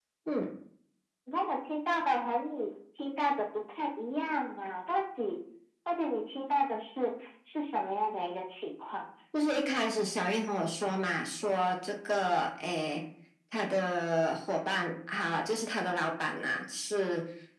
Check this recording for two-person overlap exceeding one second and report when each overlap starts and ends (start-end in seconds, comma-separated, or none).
none